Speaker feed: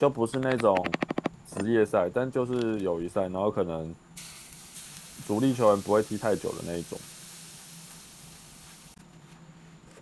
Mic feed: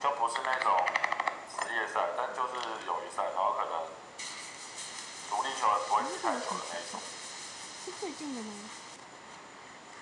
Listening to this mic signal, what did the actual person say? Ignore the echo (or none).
诶，那边有什么球赛啊是最近的吗？